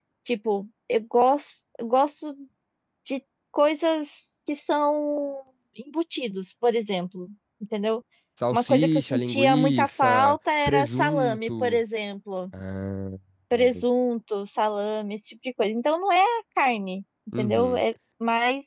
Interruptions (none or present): present